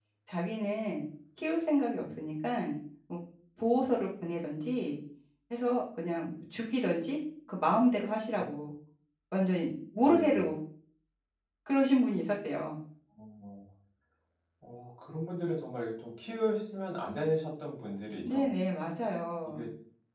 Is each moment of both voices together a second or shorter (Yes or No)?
Yes